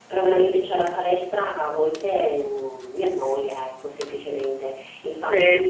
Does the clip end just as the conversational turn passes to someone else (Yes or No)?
No